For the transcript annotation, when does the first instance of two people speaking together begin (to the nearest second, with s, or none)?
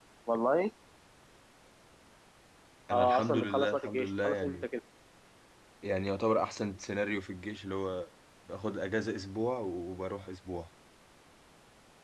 3 s